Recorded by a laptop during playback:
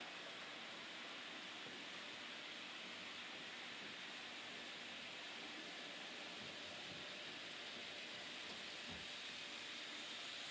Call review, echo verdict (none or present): none